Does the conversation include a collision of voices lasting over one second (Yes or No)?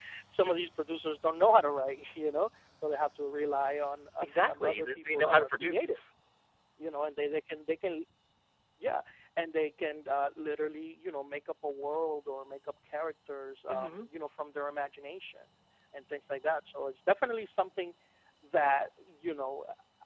Yes